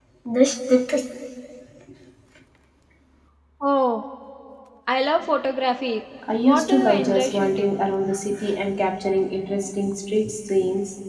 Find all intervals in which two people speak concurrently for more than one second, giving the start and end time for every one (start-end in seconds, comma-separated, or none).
6.4-7.8